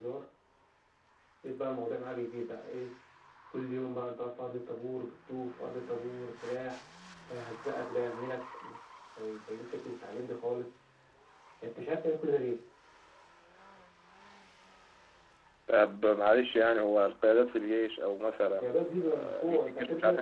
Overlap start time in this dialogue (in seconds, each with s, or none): 18.6 s